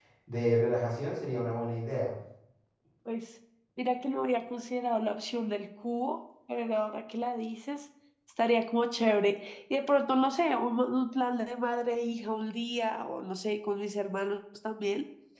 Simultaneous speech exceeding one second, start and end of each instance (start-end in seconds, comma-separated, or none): none